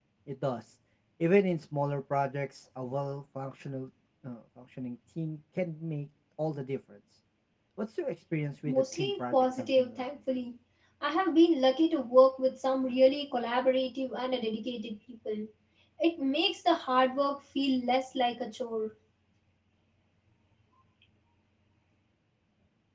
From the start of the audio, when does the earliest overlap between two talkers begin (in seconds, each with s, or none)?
8.7 s